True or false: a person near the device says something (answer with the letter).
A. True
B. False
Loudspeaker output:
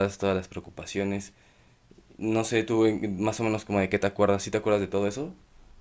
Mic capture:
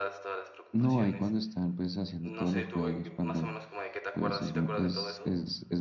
A